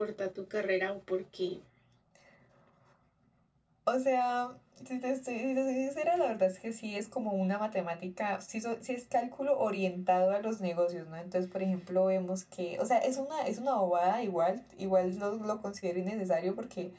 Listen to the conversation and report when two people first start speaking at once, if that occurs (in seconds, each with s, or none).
none